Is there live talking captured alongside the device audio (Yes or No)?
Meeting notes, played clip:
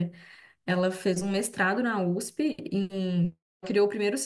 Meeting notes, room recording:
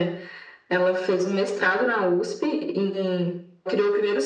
No